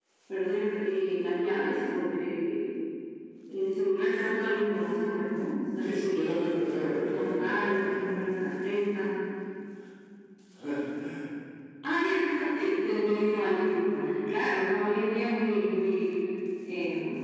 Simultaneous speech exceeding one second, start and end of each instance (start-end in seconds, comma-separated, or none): 6.4-7.8